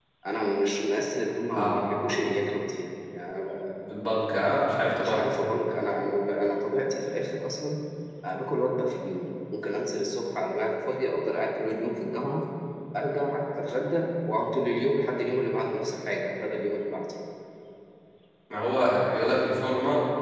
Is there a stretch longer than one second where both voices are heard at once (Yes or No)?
No